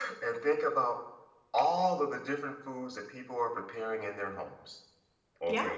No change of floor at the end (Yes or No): Yes